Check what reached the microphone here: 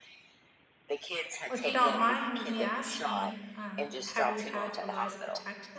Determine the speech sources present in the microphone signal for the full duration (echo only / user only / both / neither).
both